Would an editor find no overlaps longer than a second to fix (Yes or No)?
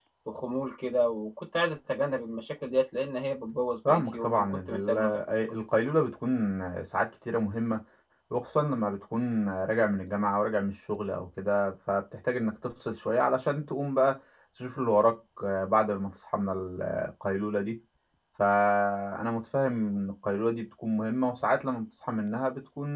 No